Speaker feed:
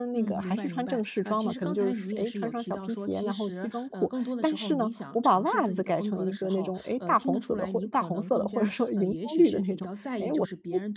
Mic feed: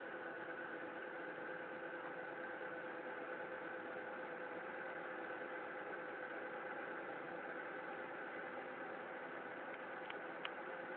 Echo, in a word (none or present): none